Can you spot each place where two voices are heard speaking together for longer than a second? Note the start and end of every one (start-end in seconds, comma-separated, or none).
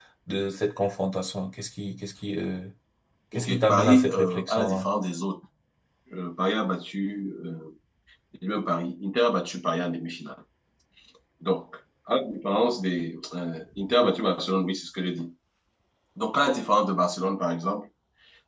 3.4-4.9